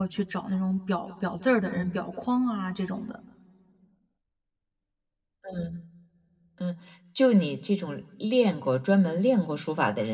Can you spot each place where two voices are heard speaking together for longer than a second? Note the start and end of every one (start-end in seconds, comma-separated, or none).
none